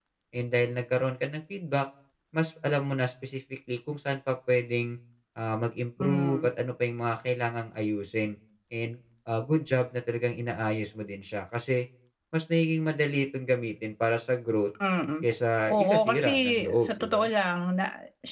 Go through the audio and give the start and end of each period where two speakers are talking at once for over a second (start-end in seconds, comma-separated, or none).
15.7-17.3